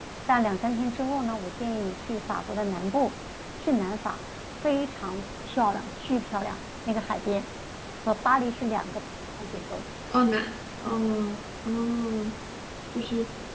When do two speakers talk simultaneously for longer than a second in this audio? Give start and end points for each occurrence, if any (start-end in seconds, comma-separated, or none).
none